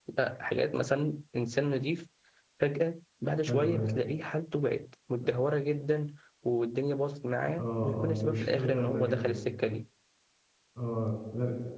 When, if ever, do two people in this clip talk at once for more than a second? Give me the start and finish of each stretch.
7.6-9.4

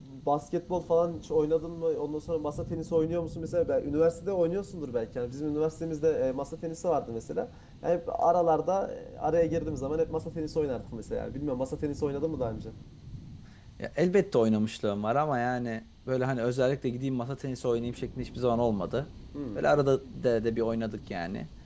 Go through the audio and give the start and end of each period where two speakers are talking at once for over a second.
none

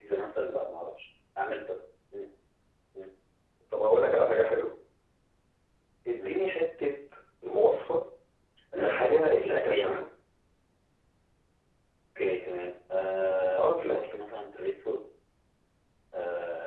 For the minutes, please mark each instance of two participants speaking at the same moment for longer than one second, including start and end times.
8.8-10.0

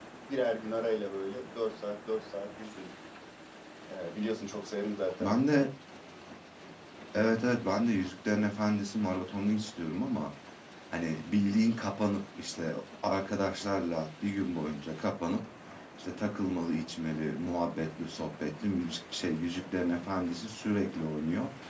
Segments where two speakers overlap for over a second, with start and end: none

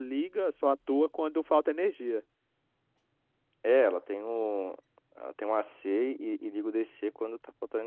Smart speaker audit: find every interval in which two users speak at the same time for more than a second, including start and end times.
none

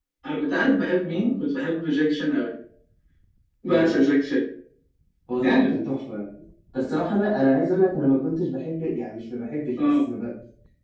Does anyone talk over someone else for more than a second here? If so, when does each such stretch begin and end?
none

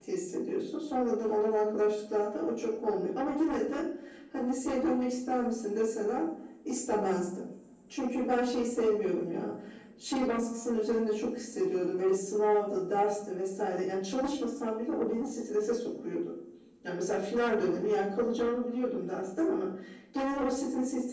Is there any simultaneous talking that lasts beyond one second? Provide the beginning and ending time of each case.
none

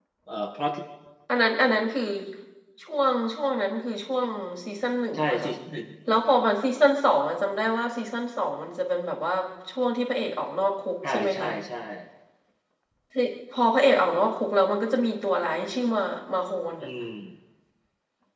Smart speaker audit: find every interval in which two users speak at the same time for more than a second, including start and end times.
none

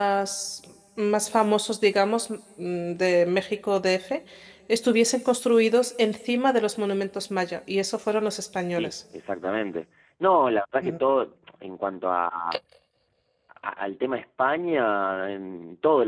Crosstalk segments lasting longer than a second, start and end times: none

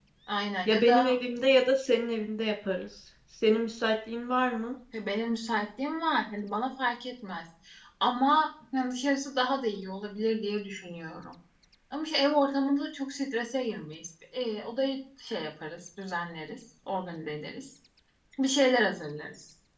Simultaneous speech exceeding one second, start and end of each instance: none

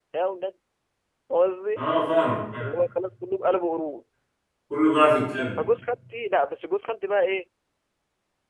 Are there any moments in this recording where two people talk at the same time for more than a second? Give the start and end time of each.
none

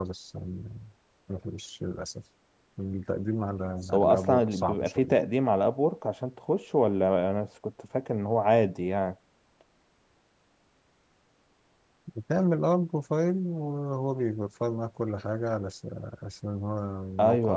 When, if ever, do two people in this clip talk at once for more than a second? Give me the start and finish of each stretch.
3.9-5.2

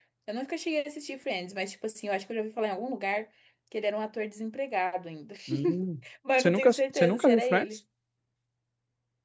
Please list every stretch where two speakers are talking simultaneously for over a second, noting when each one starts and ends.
6.4-7.7

